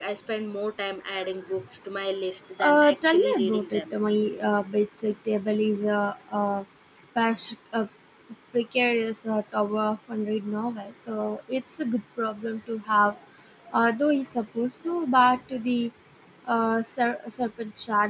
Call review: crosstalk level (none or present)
present